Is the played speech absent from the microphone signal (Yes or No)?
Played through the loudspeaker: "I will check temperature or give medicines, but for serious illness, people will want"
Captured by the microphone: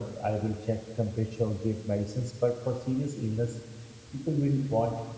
No